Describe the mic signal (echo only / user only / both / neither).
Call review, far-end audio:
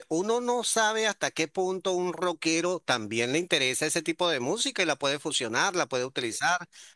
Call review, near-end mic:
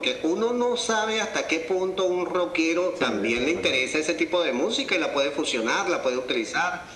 both